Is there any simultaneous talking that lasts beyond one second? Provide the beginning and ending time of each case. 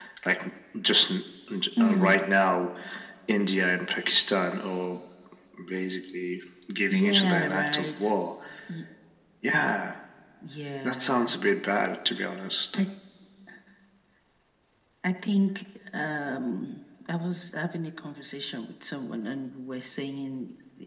6.9-8.1

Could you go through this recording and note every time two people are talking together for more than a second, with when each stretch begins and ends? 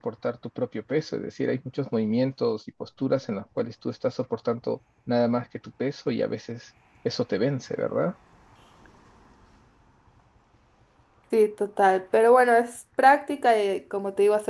none

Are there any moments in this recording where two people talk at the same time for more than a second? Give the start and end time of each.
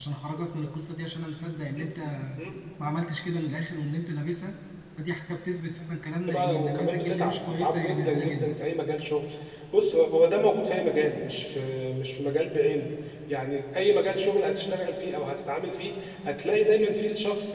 6.3-8.6

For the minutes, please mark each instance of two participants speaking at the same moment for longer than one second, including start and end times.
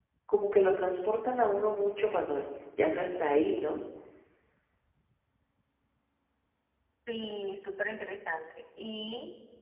none

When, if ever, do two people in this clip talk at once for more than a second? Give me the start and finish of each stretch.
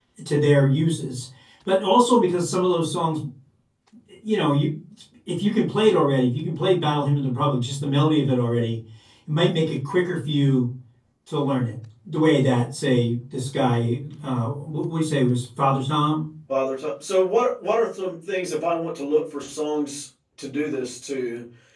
none

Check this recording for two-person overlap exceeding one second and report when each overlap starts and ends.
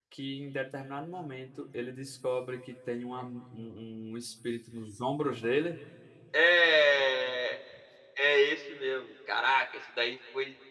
none

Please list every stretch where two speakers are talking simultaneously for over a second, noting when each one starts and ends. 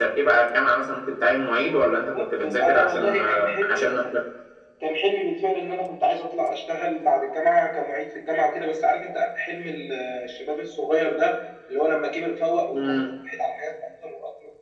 2.1-3.9

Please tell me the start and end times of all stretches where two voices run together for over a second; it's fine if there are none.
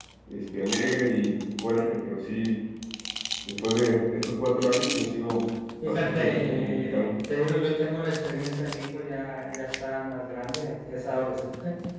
5.8-7.1

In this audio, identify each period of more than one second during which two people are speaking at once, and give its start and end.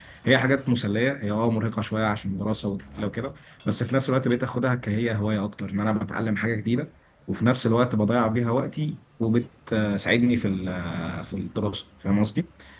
none

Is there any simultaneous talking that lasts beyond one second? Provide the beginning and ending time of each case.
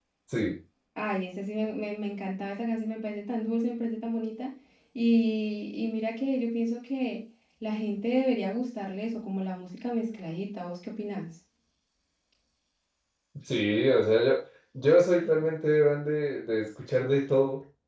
none

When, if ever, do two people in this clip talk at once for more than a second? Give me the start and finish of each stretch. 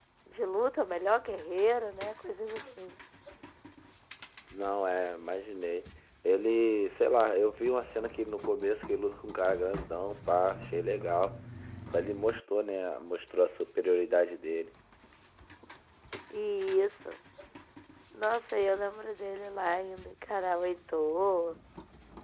none

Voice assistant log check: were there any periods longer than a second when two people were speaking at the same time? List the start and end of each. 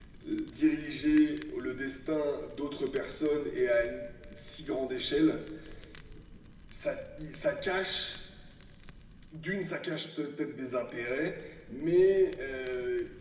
none

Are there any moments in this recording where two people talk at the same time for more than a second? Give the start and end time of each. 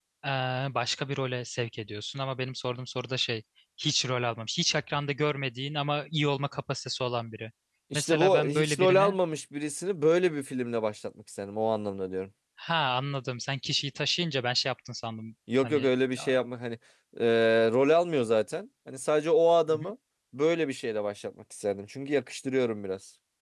7.9-9.2

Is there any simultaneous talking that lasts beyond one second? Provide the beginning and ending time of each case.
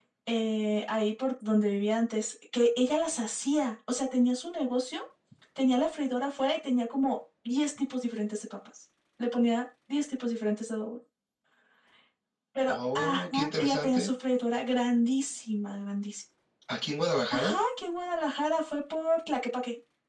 12.7-14.1

